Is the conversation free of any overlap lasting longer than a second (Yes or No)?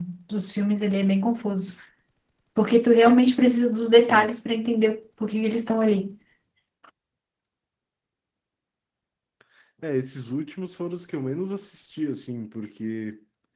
Yes